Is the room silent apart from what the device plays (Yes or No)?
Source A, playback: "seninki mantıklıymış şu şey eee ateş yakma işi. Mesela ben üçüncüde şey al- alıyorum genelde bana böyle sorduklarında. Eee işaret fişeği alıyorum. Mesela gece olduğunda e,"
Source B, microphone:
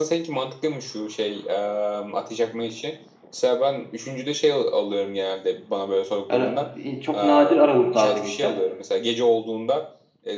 No